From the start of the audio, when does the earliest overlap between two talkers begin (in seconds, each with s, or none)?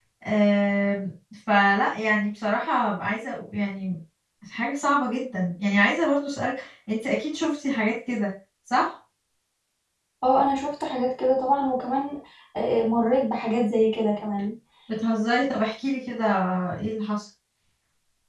none